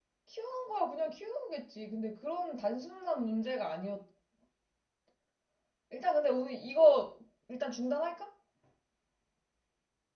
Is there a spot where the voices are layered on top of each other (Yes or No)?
No